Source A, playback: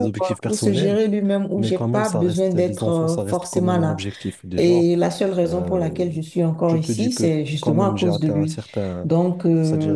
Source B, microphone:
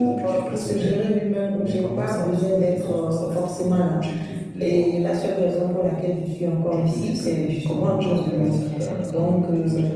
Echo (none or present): present